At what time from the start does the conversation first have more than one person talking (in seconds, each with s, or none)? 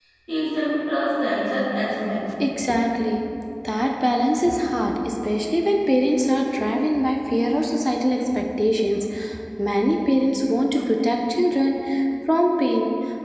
none